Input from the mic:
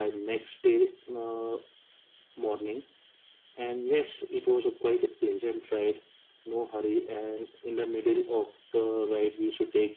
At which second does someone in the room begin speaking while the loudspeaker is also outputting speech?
none

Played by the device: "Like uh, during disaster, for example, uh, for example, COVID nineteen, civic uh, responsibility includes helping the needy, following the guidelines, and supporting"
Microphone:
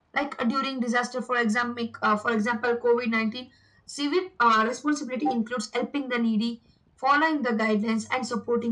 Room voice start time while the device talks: none

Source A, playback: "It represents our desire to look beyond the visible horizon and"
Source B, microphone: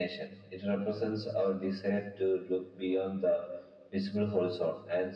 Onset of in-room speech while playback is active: none

